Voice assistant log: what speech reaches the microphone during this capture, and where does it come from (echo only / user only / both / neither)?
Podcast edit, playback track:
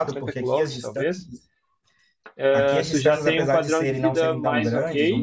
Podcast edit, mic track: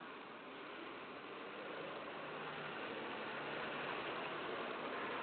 neither